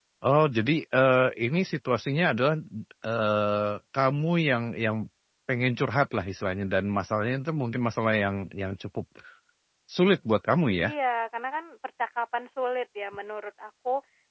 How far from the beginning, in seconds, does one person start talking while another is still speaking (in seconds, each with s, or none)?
none